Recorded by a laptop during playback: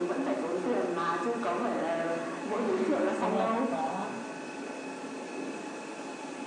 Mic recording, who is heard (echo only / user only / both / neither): both